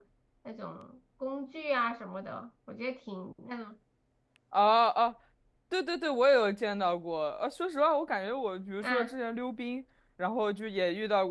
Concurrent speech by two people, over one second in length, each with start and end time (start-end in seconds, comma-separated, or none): none